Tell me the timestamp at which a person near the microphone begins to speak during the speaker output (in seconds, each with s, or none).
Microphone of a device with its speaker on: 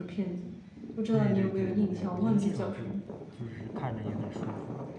1.1 s